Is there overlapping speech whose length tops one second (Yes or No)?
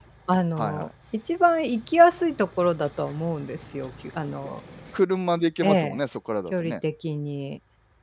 No